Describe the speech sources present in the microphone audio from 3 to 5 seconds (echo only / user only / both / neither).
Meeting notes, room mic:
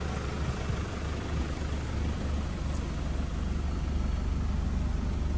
neither